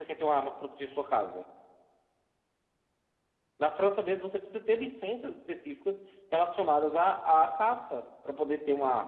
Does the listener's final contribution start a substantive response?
Yes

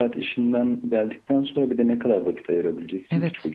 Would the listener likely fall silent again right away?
No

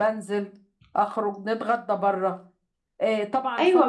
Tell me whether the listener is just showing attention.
No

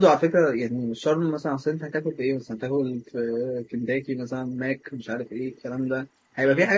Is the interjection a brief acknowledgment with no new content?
Yes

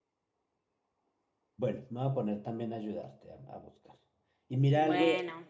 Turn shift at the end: No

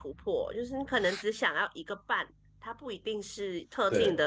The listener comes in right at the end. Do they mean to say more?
No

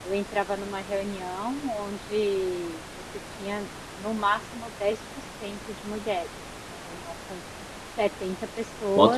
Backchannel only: No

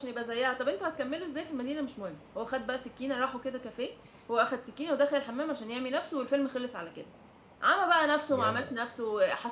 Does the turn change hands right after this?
No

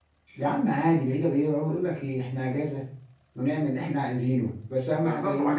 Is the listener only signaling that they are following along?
No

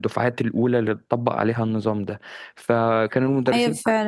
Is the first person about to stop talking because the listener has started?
Yes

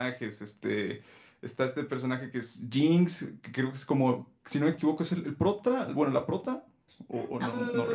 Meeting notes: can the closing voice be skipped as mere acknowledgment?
No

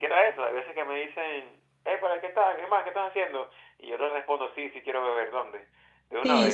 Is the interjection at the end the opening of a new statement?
Yes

